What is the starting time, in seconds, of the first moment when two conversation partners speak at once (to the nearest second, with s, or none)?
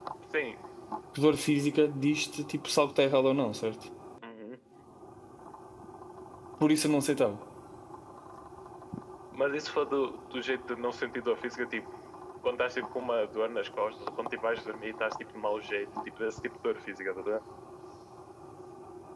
none